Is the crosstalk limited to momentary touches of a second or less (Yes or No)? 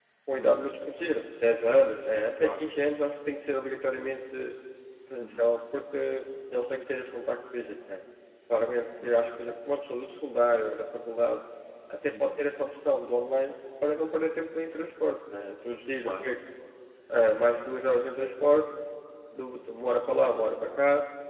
Yes